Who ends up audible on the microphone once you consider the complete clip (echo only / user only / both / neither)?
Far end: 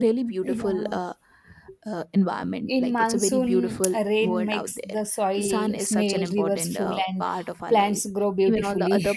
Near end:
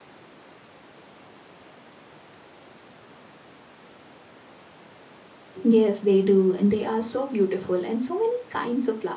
user only